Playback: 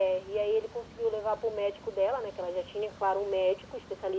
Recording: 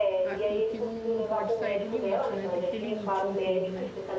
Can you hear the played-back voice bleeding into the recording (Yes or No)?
Yes